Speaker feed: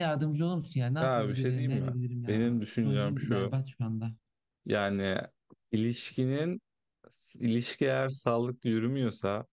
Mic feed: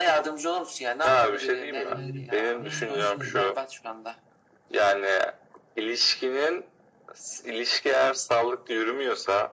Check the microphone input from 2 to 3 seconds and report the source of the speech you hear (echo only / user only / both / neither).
both